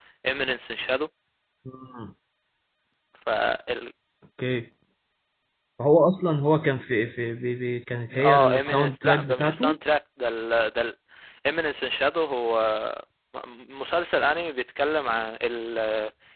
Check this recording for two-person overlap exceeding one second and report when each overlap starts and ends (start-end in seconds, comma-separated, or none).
8.2-9.8